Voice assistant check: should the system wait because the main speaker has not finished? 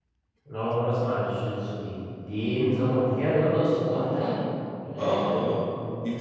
No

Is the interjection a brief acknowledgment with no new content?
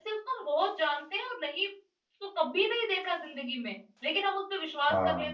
Yes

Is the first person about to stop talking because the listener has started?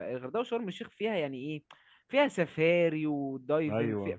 No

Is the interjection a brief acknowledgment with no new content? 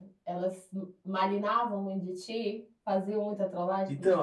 No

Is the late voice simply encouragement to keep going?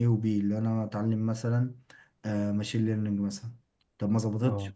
Yes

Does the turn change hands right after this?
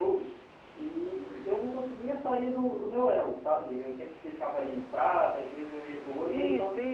Yes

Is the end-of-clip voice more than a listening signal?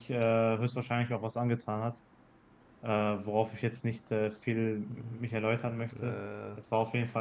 No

